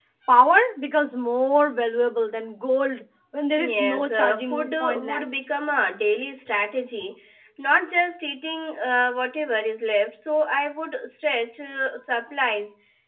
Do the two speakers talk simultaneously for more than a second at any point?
Yes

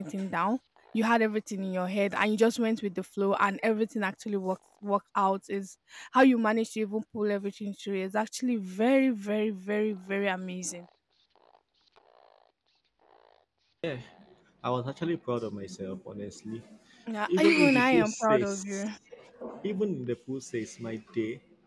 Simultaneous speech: Yes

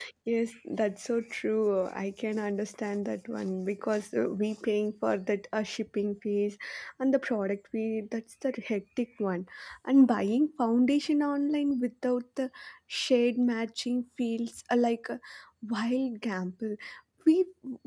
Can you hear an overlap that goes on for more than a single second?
No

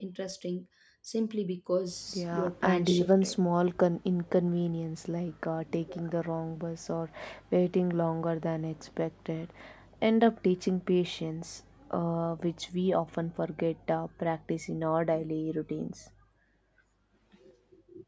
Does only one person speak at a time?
No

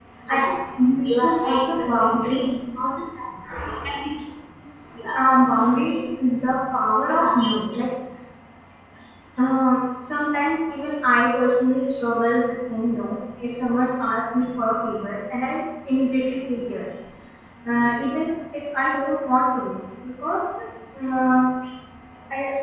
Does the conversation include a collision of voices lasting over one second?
Yes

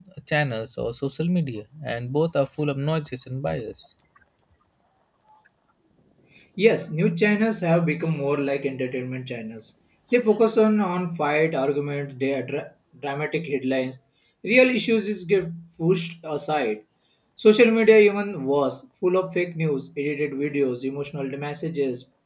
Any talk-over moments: No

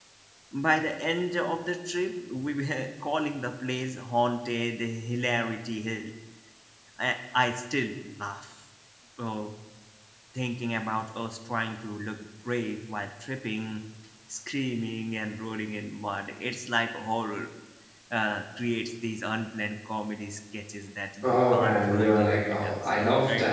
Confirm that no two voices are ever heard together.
No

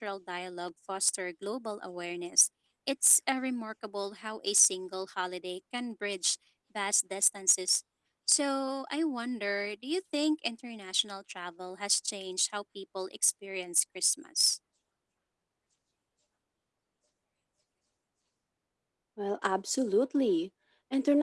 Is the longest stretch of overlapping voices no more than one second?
Yes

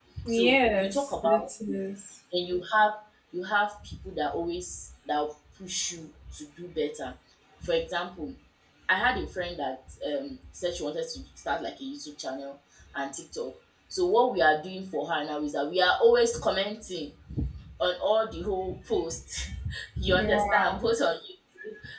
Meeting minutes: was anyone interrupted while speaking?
Yes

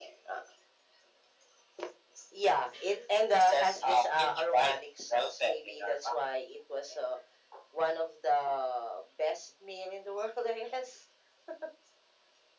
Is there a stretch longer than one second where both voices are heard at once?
Yes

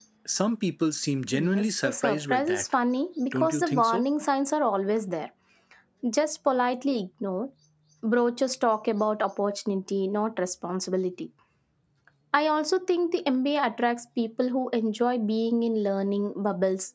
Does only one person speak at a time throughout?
No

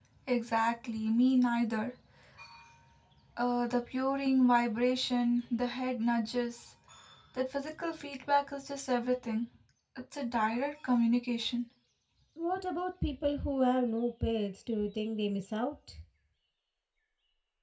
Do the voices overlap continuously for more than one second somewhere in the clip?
No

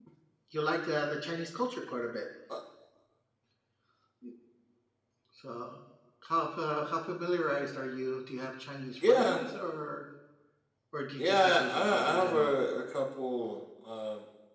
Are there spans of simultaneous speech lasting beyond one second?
Yes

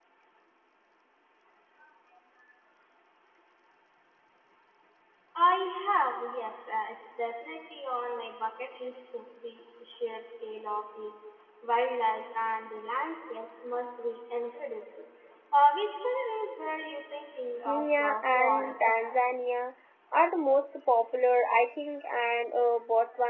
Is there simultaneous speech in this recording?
Yes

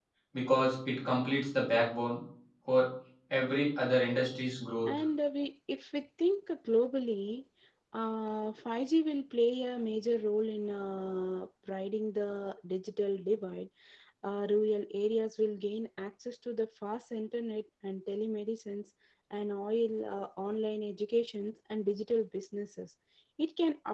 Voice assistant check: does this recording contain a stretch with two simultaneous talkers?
No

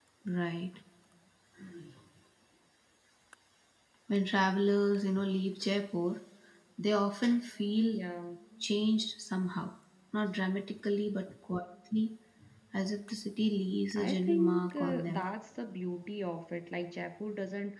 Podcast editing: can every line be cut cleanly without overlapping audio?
No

